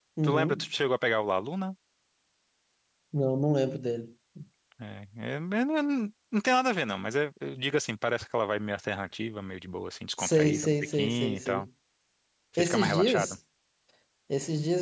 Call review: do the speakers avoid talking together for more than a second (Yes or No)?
No